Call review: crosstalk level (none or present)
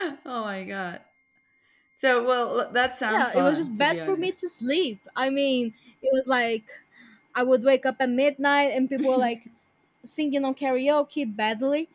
present